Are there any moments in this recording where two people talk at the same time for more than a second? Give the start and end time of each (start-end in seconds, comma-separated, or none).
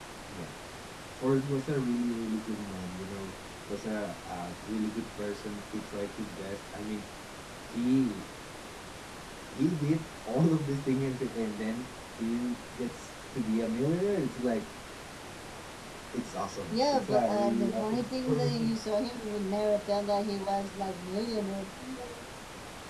16.7-18.7